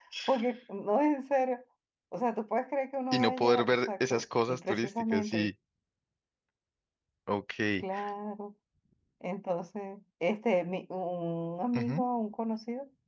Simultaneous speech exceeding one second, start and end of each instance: 3.1-5.5

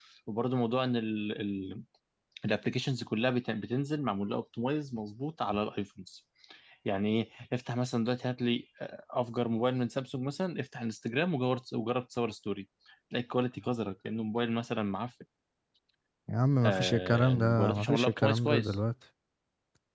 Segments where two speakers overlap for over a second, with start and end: 16.6-18.8

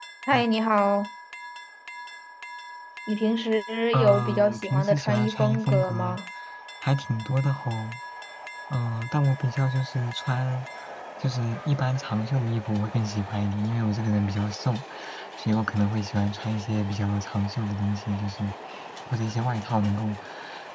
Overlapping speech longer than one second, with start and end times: 3.9-6.2

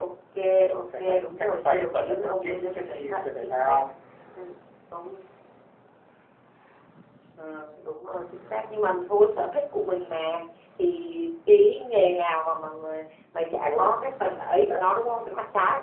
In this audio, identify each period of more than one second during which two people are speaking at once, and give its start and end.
0.7-3.8

